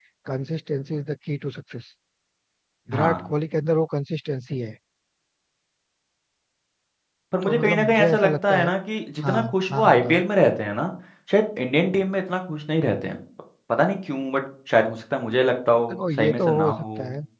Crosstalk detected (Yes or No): Yes